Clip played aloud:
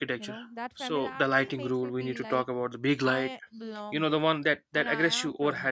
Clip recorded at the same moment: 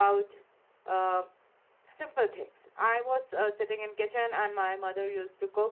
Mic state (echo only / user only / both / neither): user only